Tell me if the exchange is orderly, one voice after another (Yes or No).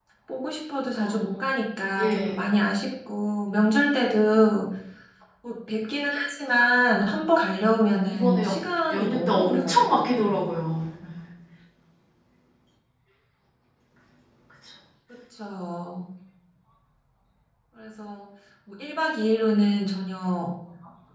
No